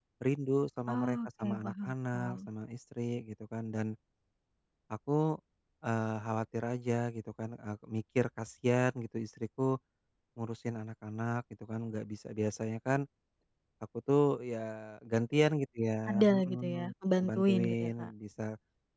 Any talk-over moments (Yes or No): Yes